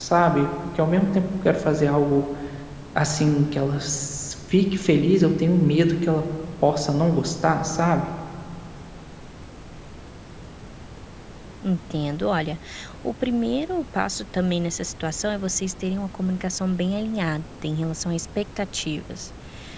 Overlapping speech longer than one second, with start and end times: none

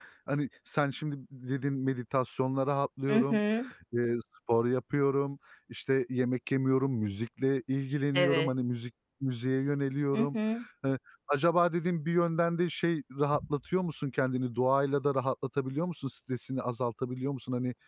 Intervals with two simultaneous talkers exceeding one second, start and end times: none

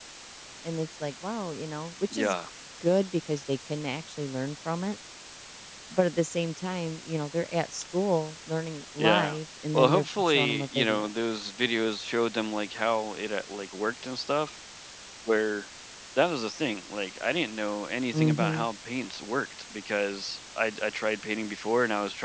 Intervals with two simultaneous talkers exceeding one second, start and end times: 9.7-11.1

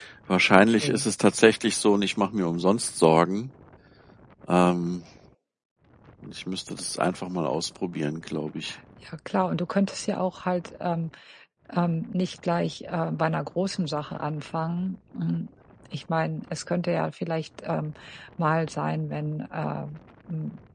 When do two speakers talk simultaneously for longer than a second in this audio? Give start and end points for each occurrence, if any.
none

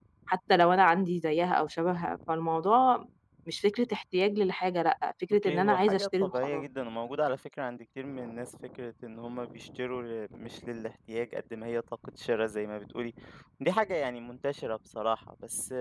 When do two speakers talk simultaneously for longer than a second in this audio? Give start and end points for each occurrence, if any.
5.4-6.7

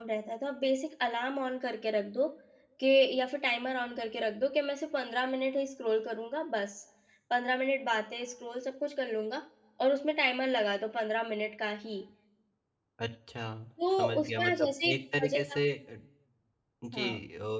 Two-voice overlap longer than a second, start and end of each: 13.9-15.6

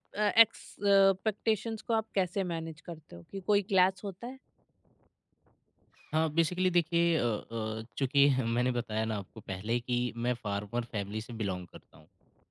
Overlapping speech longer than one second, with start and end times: none

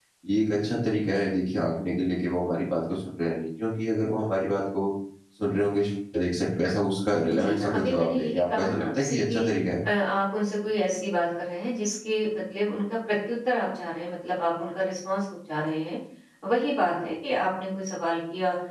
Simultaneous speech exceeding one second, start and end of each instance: 7.3-9.5

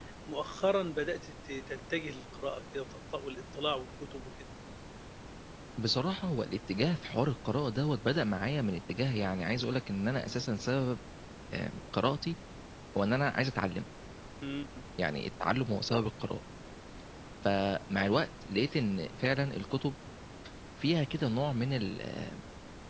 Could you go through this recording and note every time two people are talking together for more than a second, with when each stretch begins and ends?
none

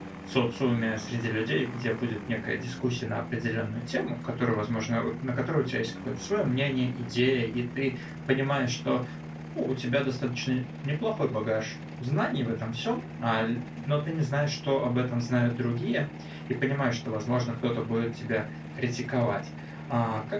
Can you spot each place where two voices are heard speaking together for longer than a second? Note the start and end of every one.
none

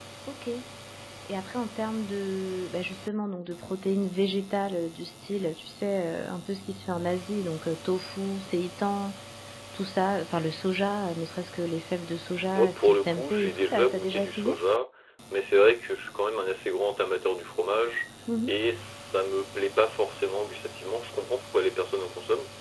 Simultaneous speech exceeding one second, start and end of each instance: 12.6-14.6

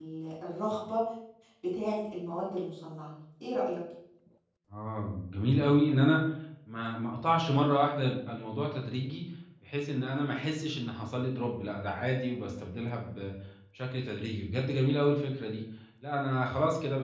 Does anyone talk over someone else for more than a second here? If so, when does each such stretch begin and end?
none

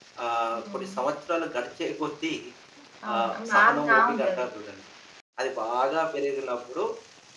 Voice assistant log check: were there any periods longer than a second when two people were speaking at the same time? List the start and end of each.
3.1-4.4

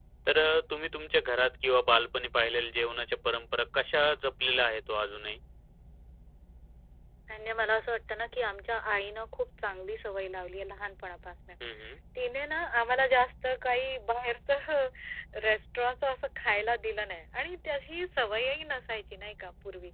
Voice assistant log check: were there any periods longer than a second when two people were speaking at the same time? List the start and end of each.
none

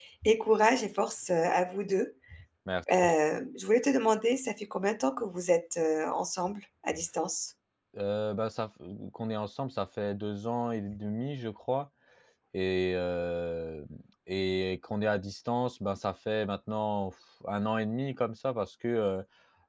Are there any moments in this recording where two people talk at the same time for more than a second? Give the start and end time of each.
none

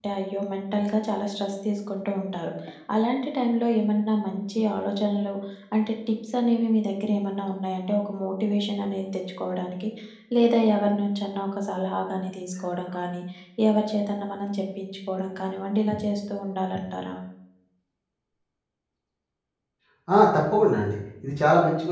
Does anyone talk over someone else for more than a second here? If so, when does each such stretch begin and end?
none

